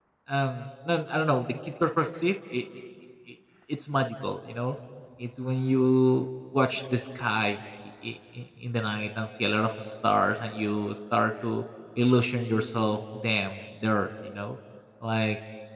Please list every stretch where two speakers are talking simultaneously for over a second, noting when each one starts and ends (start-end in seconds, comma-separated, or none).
none